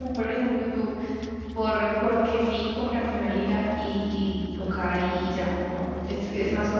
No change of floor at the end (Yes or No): Yes